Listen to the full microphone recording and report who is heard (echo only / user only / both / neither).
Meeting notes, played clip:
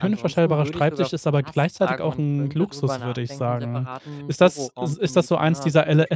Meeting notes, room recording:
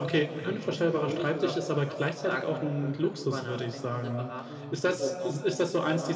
echo only